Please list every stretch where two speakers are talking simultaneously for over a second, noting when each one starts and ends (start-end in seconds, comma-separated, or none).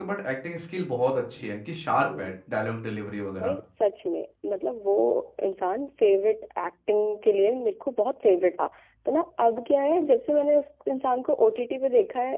none